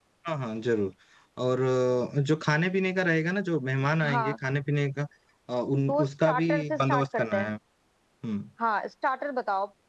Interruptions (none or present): present